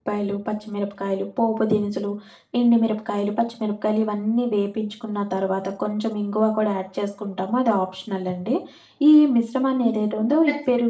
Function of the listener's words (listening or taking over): taking over